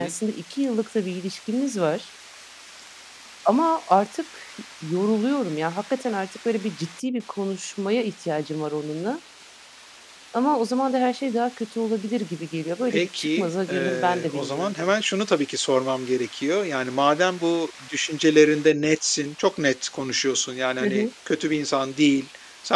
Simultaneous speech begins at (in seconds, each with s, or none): 12.9 s